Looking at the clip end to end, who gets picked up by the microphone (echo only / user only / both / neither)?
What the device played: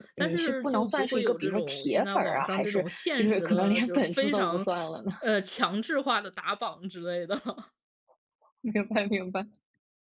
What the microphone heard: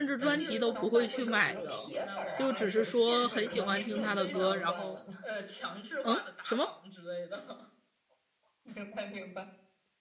both